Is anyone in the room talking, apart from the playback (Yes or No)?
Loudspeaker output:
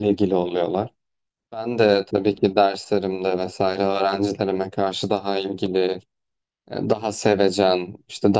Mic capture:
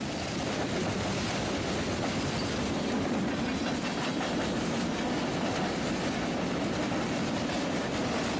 No